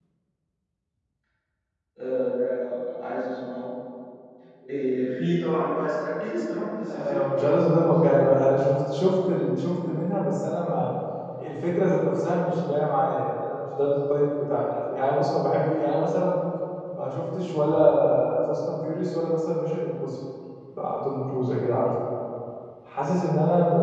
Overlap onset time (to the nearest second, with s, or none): 7 s